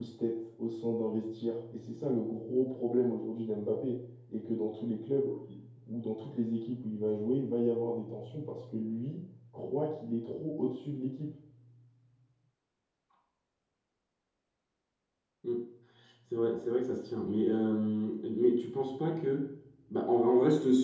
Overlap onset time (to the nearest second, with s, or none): none